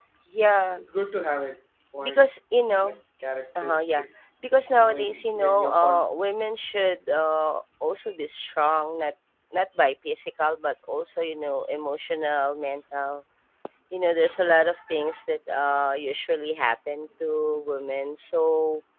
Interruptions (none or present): present